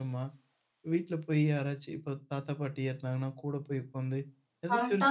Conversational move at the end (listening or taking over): listening